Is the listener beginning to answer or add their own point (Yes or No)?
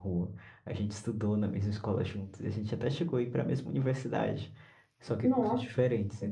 No